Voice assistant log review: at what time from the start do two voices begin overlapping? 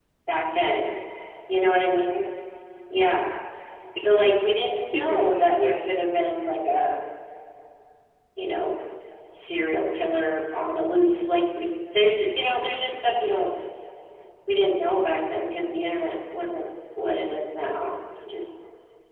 4.0 s

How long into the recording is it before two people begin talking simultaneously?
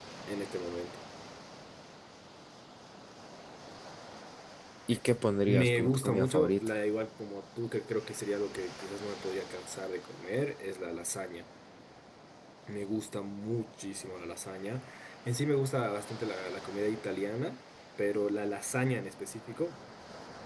5.5 s

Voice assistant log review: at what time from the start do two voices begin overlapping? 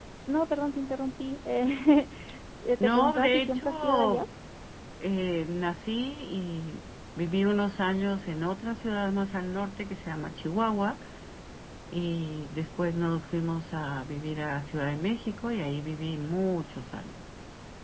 2.8 s

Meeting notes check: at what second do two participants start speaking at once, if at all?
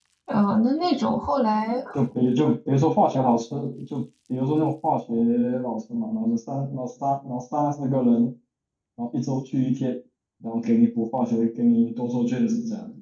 none

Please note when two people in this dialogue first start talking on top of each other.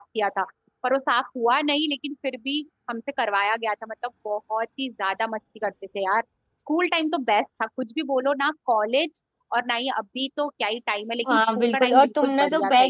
11.3 s

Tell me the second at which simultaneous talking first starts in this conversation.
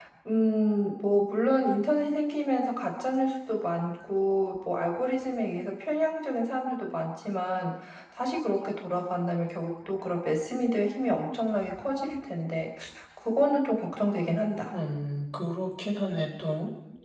none

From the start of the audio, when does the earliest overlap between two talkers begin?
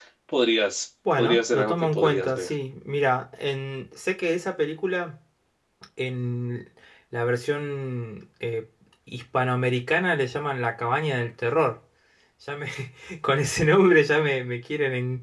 1.2 s

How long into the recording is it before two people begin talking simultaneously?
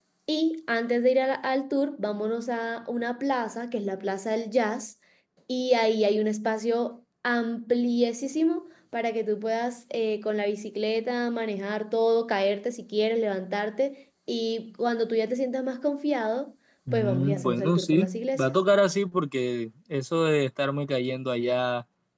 16.9 s

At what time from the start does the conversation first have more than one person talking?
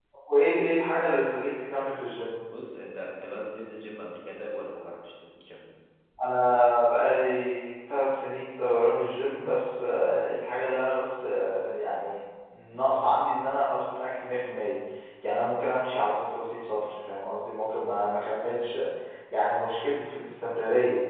none

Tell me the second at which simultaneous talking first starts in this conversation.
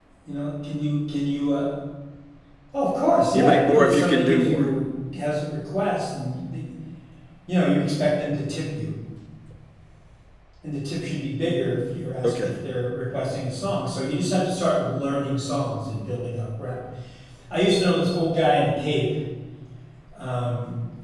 3.3 s

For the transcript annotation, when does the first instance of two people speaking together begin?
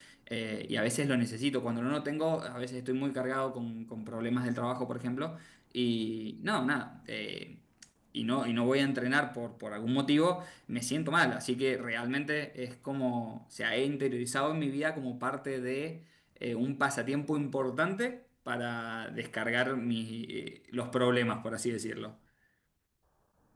none

